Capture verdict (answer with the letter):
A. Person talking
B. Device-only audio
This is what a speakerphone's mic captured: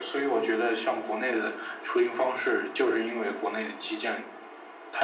B